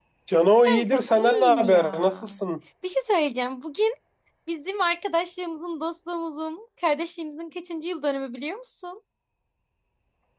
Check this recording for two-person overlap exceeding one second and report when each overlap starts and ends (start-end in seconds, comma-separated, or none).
0.7-2.1